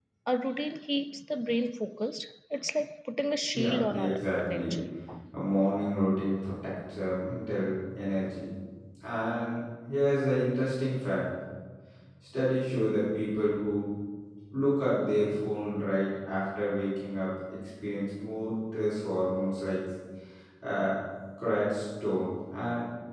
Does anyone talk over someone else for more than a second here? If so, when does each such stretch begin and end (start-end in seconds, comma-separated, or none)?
3.5-4.8